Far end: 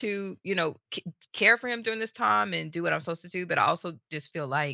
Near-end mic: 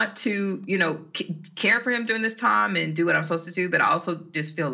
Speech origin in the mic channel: echo only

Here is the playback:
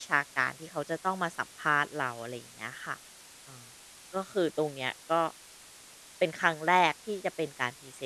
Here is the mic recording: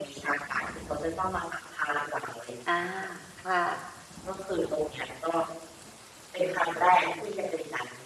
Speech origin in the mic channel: both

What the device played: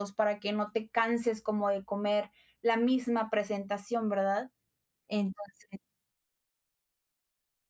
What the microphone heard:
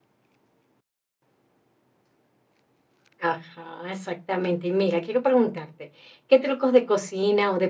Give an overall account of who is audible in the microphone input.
user only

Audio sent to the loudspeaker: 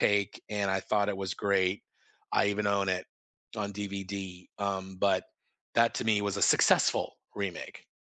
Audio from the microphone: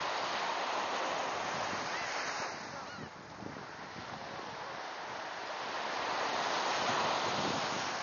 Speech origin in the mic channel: neither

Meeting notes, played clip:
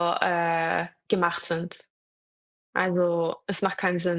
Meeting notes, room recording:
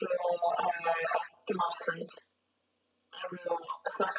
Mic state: echo only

